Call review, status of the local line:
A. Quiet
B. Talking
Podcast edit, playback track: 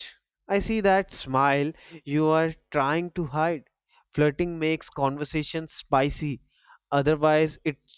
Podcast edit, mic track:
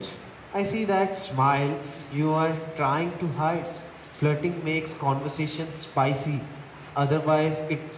A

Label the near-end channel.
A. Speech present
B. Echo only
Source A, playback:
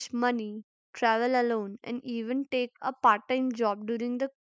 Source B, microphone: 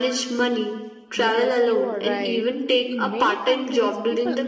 A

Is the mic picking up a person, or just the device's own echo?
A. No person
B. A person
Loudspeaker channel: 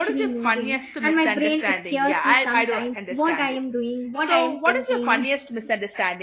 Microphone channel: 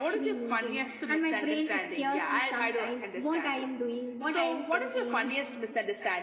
A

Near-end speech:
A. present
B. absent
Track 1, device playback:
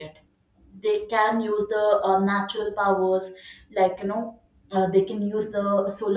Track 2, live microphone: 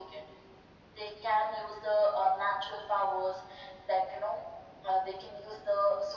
B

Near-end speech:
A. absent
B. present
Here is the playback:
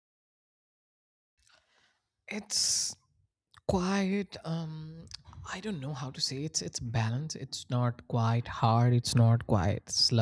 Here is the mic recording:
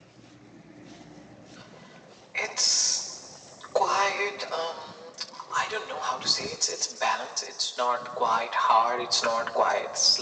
A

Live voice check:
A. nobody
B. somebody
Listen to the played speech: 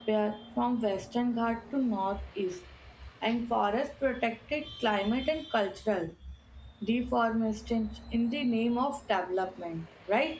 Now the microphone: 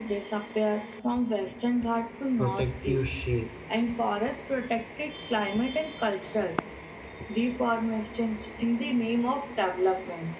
B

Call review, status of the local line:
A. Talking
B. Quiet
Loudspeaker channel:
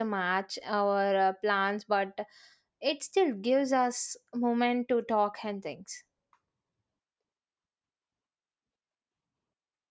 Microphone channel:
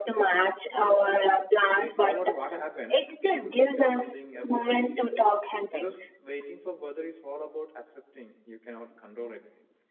A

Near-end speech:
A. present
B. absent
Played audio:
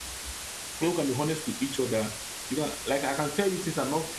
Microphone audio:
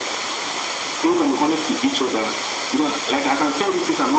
B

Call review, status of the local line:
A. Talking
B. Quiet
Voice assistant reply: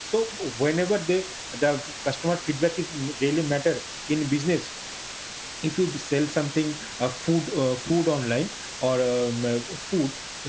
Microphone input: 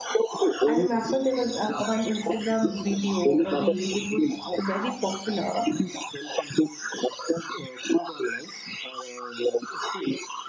A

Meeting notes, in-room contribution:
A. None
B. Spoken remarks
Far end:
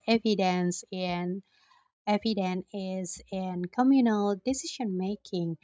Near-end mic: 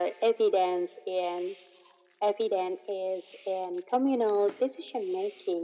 A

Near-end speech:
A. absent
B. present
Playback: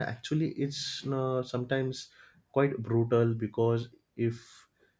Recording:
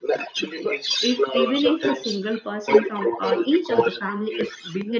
B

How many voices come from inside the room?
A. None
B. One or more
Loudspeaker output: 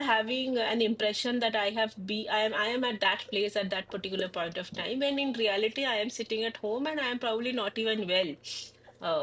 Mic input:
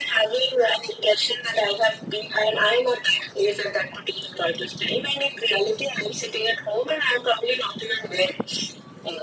A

